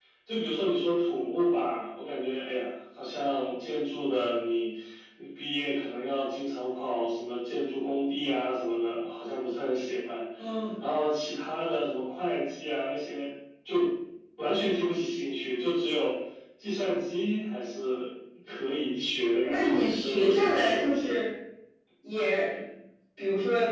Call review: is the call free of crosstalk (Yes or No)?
No